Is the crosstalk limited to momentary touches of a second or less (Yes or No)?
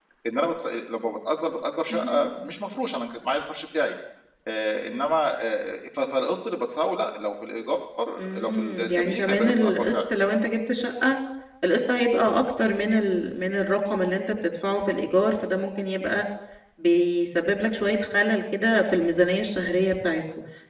No